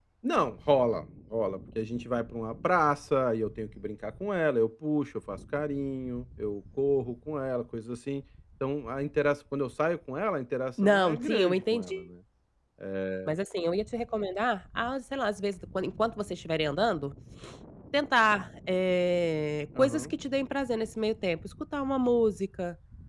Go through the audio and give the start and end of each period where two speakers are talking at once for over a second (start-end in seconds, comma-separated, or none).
10.8-12.0